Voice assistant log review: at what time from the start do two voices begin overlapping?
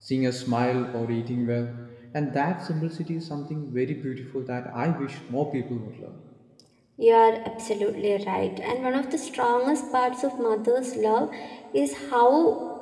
none

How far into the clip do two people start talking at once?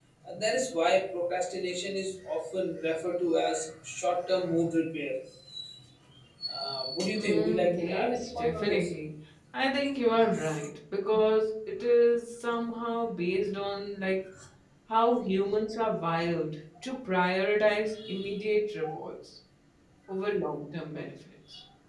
7.2 s

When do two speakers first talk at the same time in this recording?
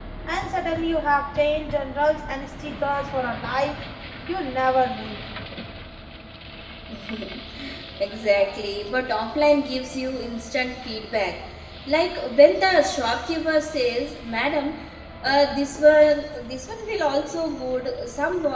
none

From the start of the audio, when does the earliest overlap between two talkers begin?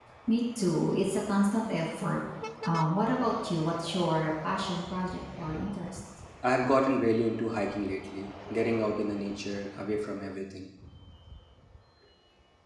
none

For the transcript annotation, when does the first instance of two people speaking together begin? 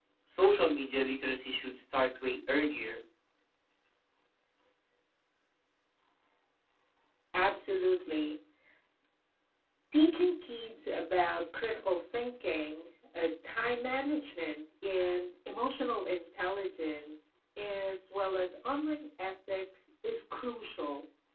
none

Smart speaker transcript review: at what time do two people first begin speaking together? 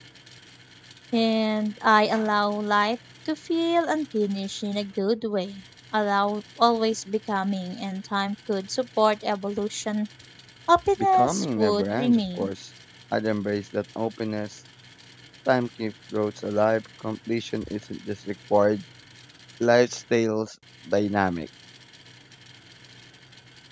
11.0 s

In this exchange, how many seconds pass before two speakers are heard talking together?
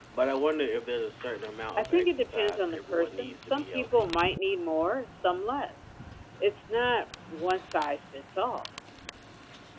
1.8 s

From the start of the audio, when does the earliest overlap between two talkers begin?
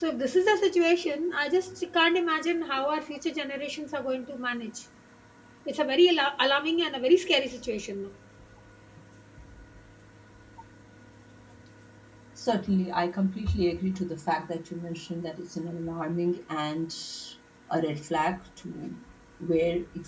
none

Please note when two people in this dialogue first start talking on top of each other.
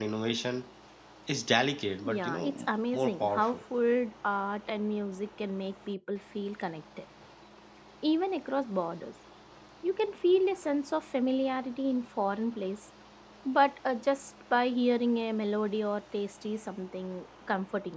2.0 s

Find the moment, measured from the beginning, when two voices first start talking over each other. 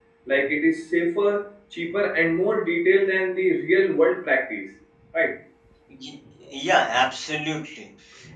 none

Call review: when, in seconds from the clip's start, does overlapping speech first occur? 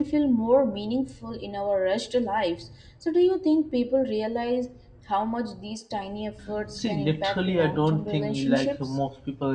6.8 s

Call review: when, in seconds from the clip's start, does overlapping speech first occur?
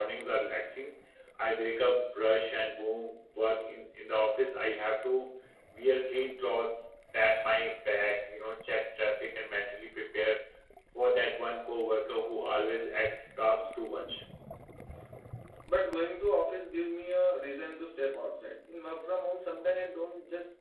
none

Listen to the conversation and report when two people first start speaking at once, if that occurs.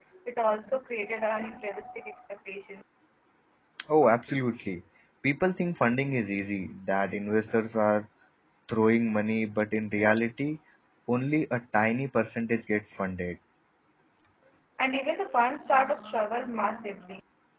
none

